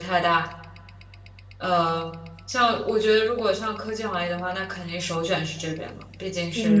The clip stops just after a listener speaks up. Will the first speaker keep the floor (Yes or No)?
No